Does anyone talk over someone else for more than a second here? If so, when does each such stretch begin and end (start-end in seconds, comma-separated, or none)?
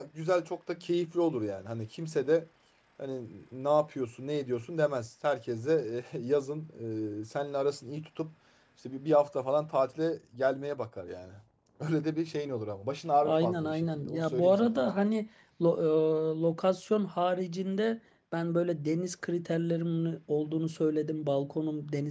13.2-14.8